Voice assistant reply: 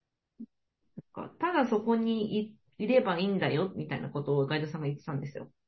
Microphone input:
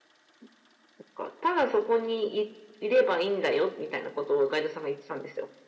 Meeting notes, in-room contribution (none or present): none